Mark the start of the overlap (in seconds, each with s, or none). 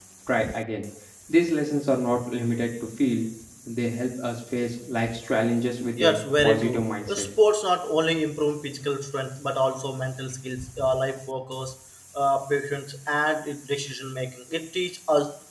6.0 s